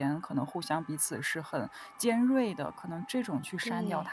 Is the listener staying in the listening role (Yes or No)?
Yes